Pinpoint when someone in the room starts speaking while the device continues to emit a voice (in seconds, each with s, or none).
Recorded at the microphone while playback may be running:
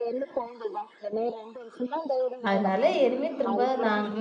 2.5 s